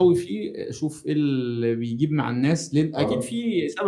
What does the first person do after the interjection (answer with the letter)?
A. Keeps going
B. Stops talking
A